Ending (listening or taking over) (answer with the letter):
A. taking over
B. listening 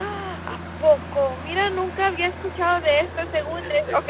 A